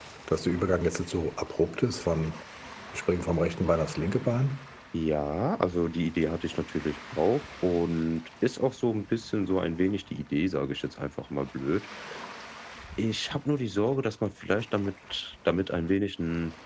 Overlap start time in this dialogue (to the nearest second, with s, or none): none